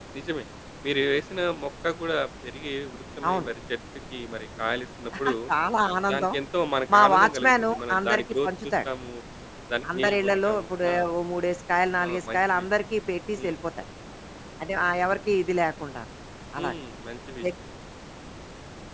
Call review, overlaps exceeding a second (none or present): present